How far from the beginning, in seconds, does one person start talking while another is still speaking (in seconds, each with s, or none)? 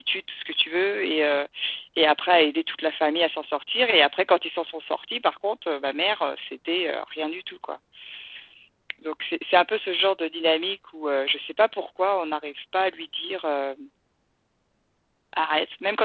none